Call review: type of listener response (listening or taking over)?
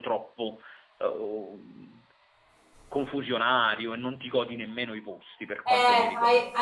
taking over